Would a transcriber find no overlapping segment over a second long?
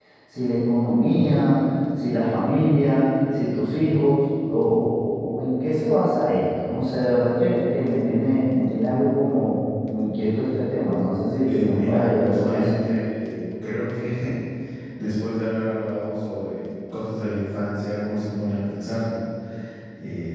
No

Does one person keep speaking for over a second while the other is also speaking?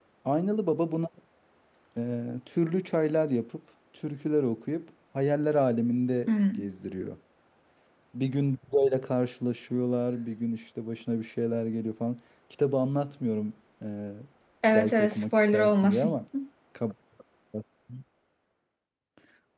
Yes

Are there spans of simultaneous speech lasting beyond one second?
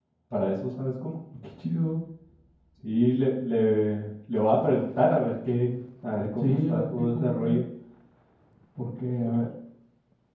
Yes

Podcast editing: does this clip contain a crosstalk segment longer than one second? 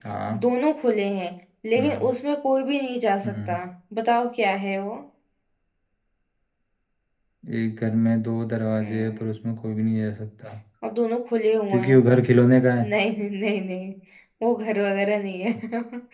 No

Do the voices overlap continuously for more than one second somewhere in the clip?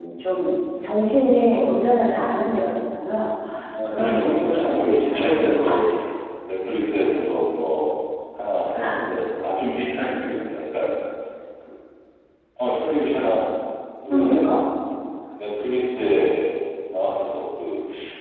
Yes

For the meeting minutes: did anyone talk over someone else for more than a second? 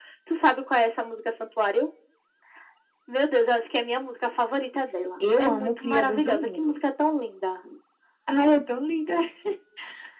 Yes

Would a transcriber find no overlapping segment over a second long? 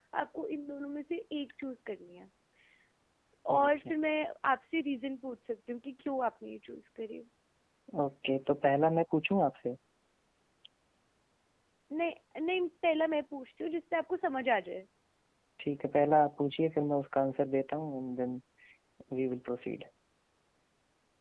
Yes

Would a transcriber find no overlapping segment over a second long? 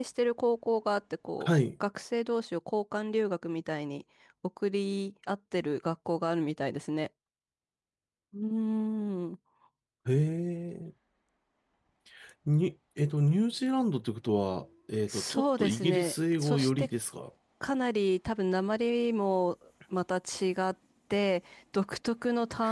No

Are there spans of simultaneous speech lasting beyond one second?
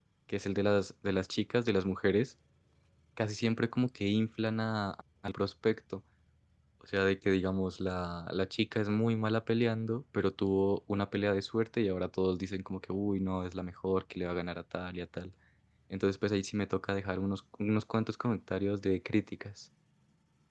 No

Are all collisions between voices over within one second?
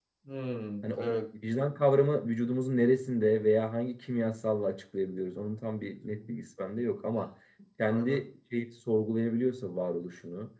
Yes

